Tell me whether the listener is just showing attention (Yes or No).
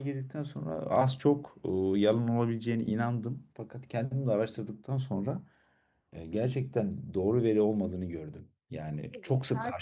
No